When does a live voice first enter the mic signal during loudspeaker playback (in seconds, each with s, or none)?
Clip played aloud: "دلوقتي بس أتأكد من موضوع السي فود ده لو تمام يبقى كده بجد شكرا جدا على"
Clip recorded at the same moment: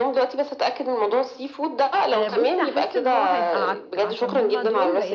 2.1 s